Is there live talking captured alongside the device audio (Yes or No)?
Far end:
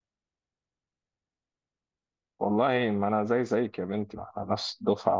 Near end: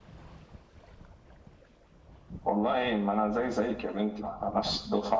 No